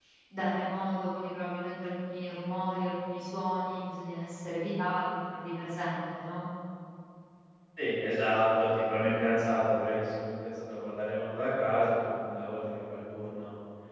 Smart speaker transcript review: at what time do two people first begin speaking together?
none

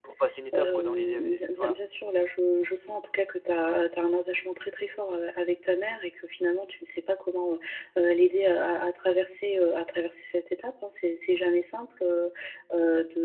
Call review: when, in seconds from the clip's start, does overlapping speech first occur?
0.5 s

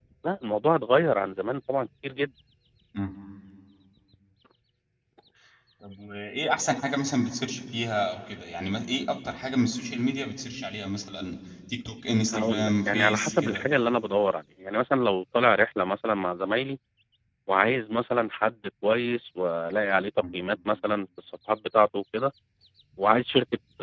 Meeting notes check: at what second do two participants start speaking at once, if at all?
12.3 s

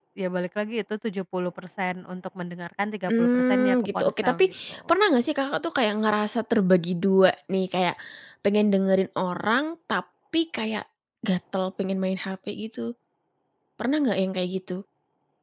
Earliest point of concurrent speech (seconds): 3.1 s

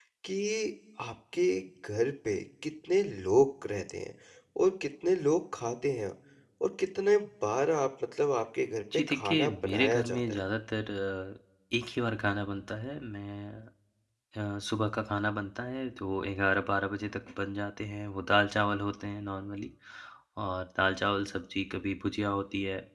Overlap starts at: 8.9 s

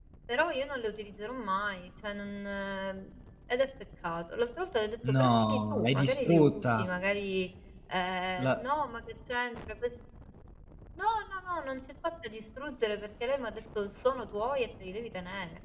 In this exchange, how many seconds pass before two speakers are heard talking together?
5.1 s

